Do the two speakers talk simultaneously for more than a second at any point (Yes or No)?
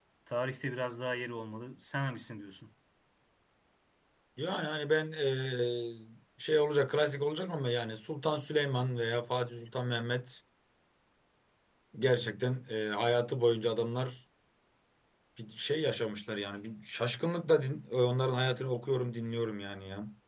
No